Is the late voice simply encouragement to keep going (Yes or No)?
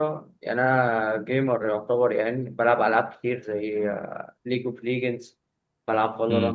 Yes